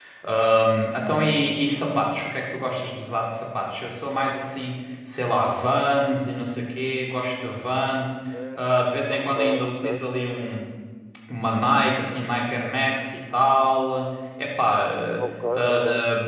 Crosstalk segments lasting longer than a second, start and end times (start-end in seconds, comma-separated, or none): 8.6-9.8